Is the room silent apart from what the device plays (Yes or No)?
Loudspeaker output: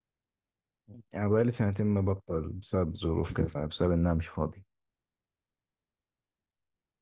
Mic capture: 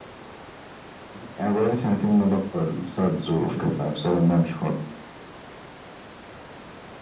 Yes